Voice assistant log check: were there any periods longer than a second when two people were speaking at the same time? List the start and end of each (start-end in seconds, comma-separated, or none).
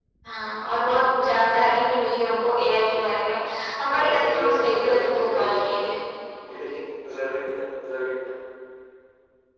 3.8-5.9